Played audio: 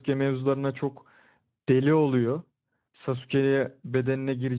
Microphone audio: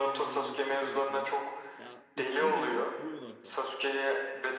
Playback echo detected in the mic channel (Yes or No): Yes